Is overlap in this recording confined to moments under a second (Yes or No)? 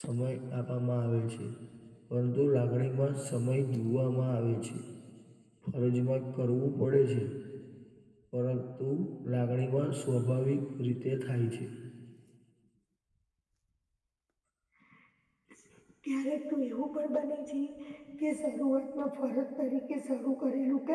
Yes